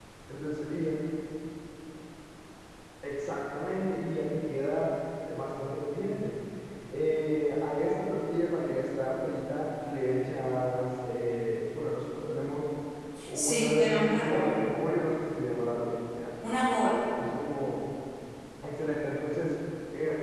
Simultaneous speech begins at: 13 s

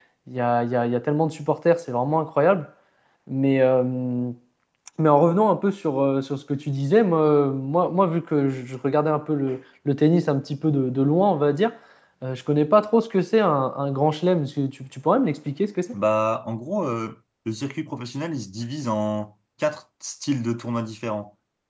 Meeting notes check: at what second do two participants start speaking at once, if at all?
none

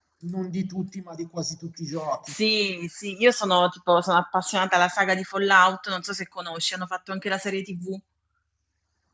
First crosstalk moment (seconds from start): none

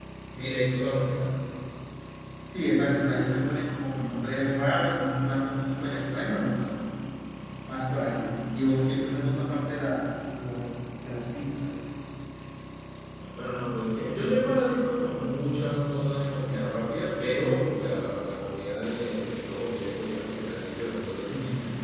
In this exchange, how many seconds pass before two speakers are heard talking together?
none

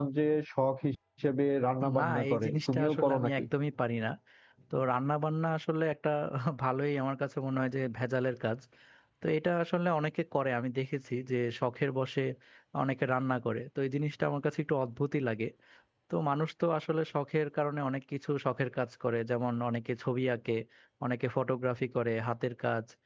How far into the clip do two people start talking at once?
2 s

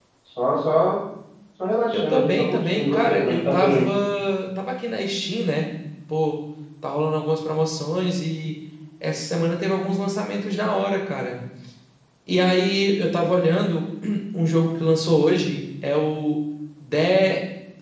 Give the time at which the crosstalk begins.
2 s

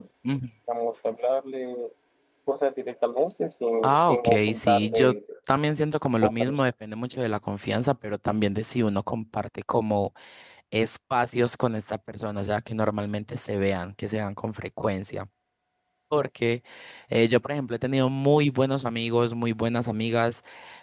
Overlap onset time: 4 s

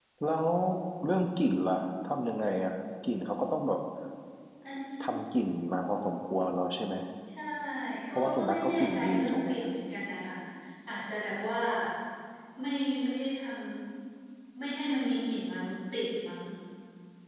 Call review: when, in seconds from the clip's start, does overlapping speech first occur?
8 s

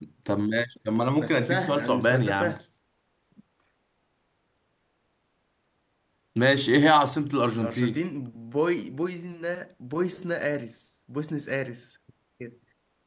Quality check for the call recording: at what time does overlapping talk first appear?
1 s

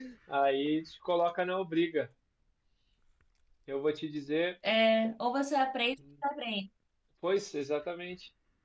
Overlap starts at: none

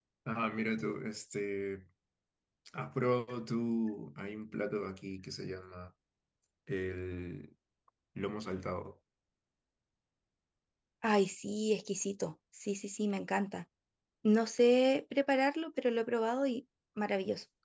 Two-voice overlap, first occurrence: none

